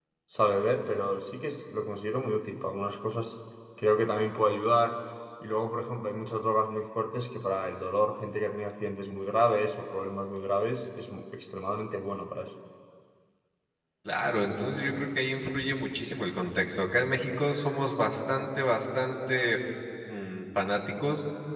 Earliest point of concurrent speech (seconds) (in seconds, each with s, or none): none